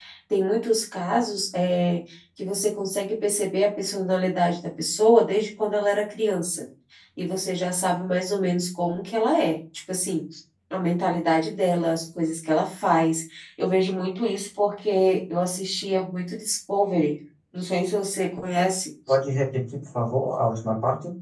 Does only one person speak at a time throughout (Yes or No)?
Yes